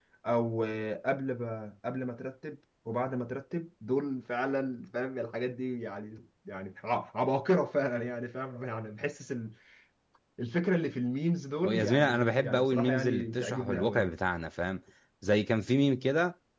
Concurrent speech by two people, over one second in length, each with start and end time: 11.7-14.1

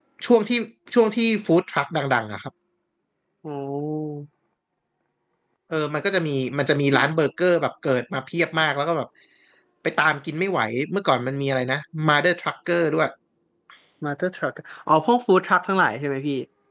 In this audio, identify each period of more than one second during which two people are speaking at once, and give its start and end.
none

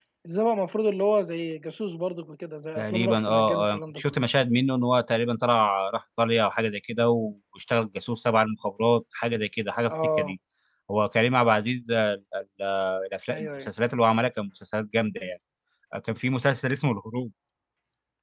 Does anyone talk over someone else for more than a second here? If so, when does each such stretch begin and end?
2.8-4.2

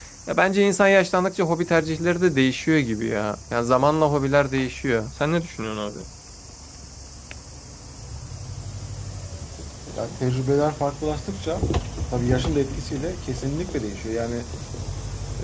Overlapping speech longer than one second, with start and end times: none

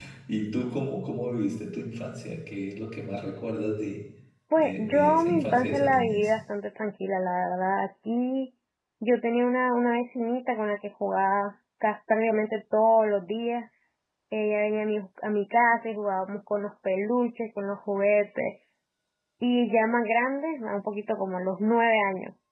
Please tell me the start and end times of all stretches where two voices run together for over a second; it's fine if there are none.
4.5-6.3

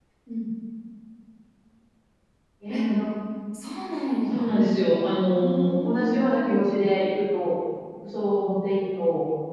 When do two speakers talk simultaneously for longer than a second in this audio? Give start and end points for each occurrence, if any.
5.3-6.6

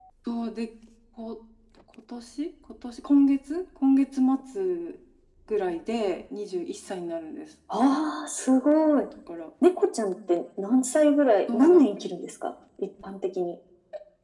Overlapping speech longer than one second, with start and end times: none

